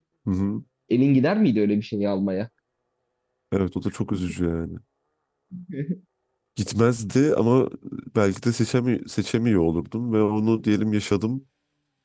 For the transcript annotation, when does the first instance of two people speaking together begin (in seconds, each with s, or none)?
none